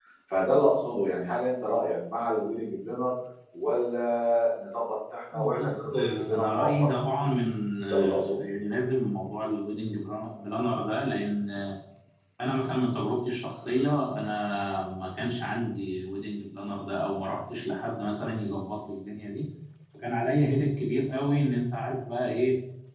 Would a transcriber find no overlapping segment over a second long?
No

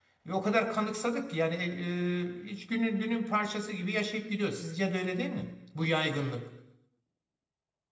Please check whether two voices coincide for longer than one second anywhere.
No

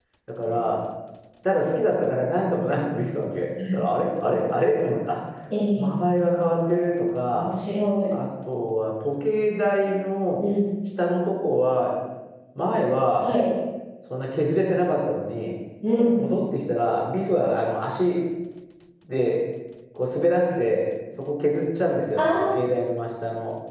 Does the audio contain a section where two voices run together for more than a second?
No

